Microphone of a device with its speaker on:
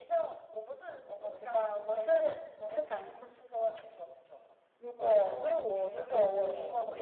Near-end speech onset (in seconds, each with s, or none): 5.0 s